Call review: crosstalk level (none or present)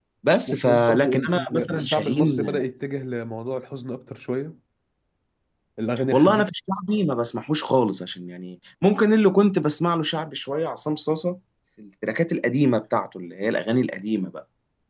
present